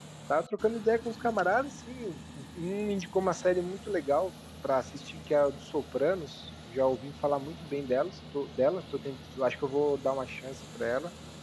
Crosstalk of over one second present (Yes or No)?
No